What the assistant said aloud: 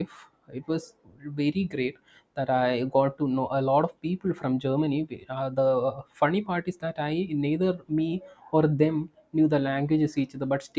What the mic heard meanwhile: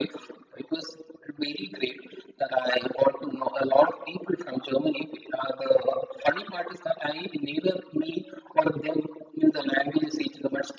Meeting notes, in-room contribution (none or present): none